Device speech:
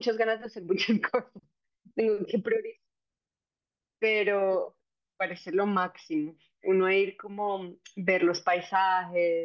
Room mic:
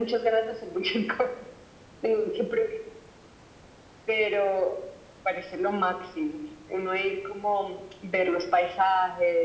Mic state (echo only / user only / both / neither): echo only